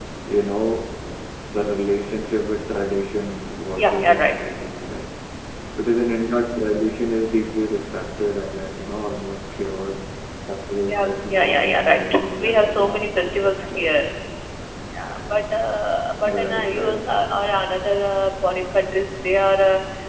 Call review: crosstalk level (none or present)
present